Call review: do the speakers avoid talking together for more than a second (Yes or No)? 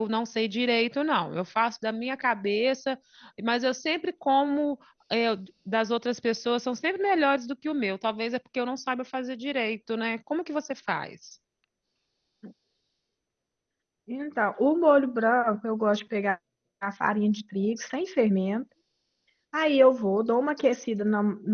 Yes